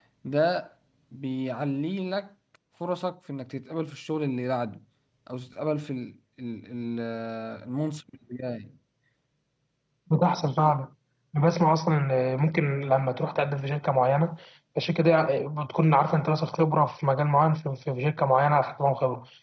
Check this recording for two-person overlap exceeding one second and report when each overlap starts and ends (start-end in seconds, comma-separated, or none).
none